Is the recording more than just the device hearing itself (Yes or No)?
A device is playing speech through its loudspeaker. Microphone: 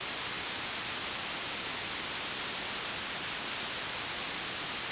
No